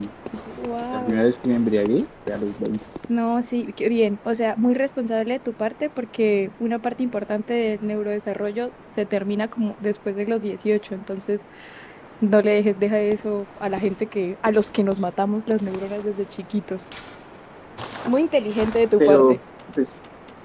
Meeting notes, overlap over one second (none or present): none